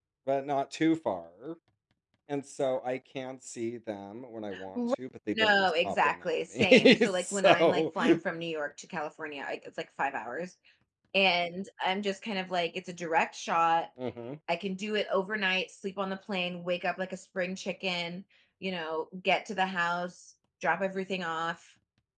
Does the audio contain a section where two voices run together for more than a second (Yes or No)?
Yes